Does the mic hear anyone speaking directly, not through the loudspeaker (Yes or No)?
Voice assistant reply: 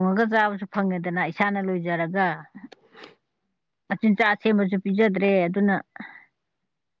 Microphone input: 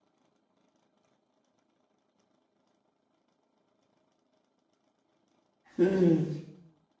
Yes